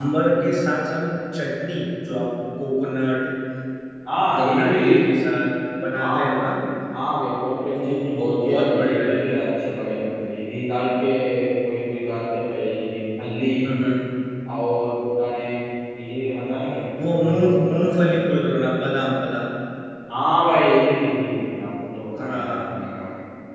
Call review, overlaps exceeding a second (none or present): present